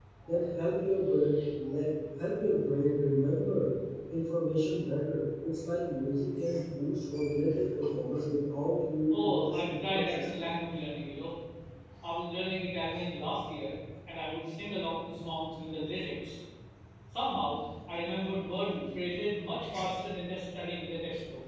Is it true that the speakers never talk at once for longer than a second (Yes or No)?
No